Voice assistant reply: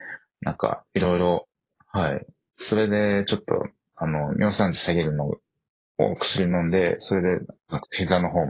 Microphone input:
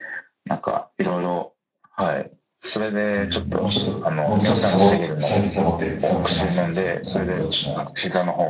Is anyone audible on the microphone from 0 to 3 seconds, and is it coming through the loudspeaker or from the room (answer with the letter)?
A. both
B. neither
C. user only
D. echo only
D